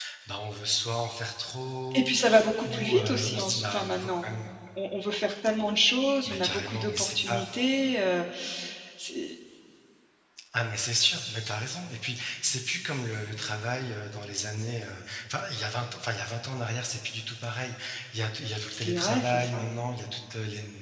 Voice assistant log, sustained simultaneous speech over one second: present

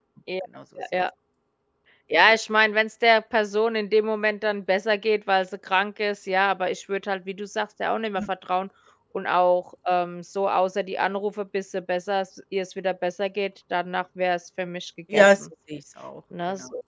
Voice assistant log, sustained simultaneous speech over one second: none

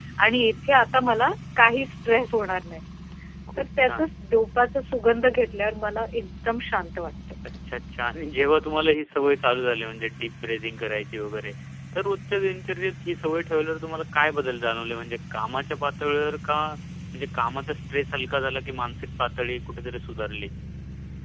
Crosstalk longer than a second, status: none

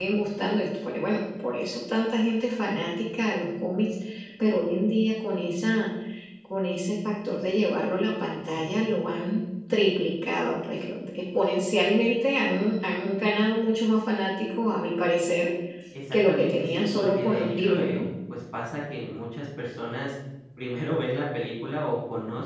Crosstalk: present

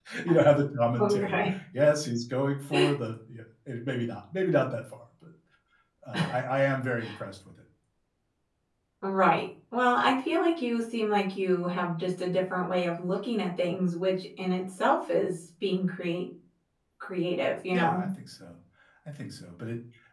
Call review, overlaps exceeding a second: none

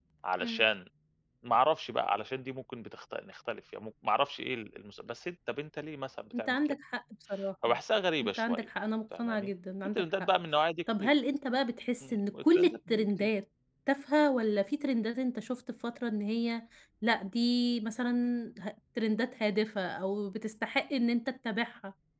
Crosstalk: present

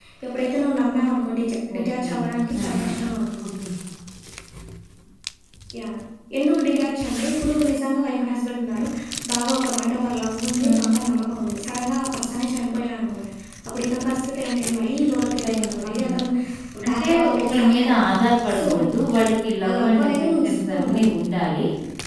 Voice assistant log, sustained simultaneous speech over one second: present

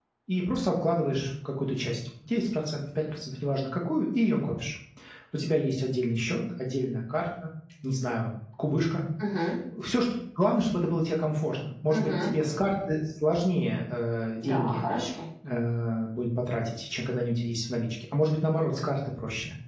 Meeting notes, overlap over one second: none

